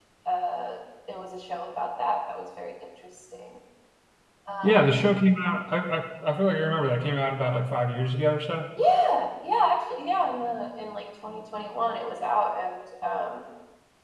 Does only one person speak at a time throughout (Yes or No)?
Yes